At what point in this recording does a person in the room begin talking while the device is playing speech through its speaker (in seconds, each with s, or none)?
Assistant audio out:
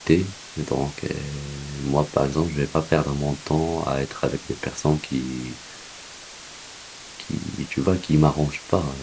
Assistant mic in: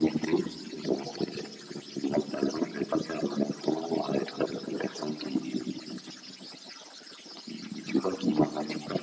none